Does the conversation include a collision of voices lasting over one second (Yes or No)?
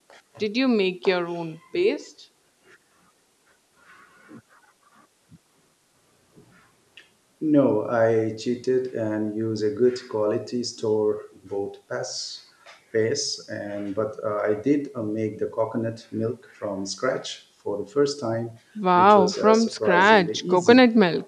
Yes